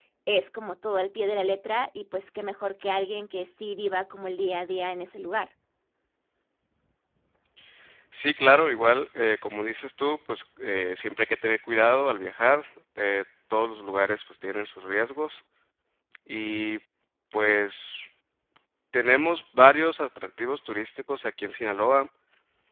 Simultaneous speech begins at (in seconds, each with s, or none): none